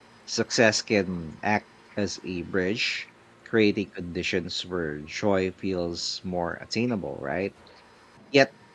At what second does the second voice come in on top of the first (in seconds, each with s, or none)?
none